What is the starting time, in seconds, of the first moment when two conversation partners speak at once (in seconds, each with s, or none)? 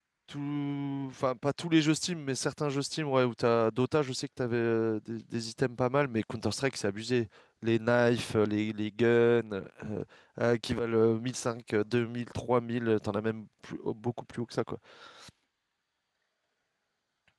none